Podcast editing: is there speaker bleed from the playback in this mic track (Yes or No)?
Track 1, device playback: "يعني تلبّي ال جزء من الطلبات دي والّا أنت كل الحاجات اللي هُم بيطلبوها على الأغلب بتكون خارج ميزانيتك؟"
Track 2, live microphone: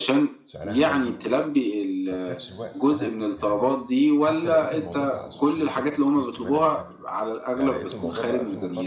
Yes